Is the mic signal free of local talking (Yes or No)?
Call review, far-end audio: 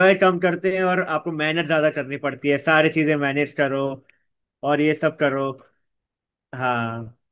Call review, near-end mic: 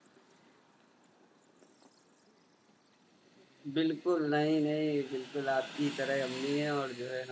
No